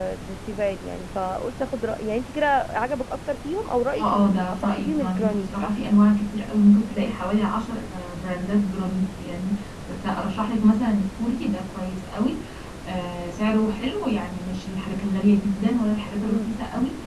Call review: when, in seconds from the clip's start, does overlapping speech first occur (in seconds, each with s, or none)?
4.0 s